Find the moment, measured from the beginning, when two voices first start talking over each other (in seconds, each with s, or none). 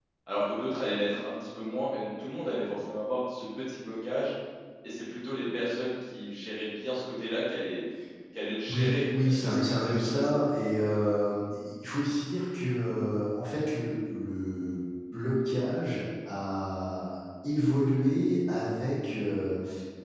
8.7 s